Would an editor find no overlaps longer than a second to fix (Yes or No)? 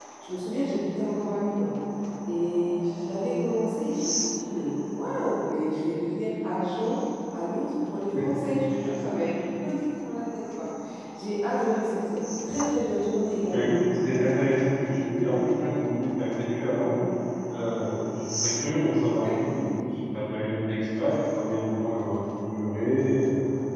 Yes